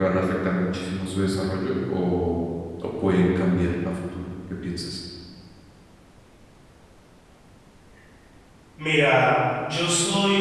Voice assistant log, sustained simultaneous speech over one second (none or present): none